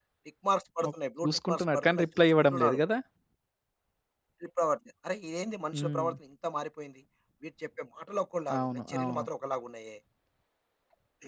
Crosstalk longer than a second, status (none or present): present